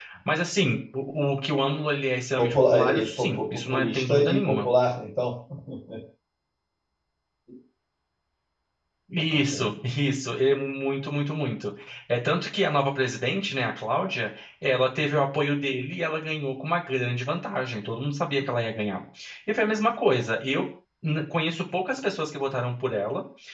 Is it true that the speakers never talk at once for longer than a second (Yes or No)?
No